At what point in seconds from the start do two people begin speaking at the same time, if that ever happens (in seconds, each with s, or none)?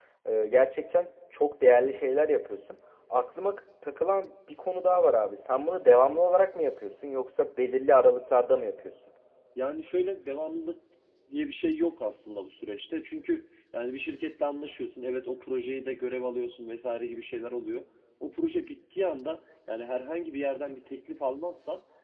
none